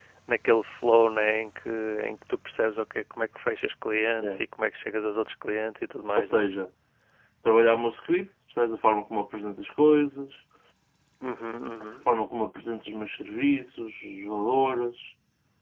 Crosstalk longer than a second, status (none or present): none